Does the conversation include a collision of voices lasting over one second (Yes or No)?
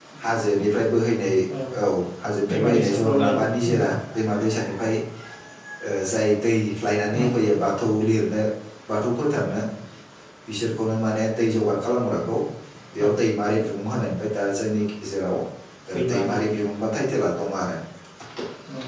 Yes